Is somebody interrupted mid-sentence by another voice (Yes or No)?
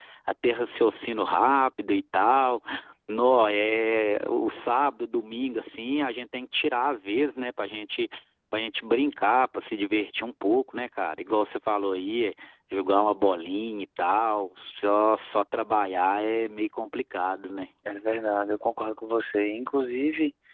No